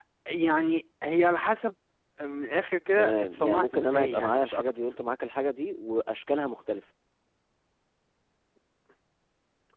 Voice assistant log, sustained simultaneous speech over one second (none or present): present